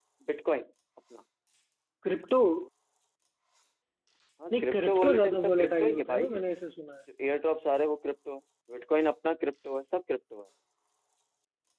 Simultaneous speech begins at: 5 s

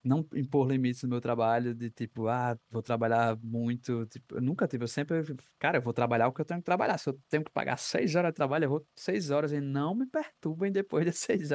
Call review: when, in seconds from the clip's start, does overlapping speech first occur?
none

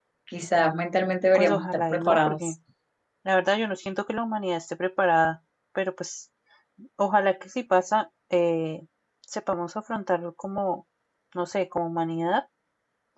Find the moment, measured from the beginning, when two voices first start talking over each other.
1 s

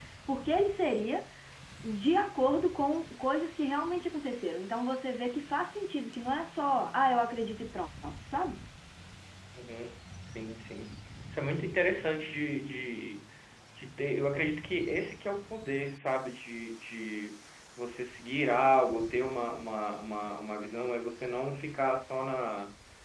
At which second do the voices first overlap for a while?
none

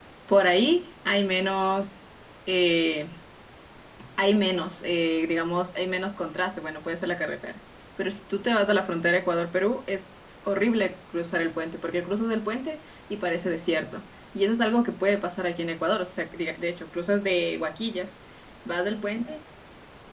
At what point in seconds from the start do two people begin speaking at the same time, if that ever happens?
none

